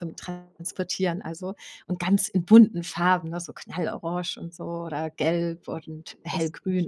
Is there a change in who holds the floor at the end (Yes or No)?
No